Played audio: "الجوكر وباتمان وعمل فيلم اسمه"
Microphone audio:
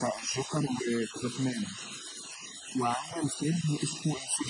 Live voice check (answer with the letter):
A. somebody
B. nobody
B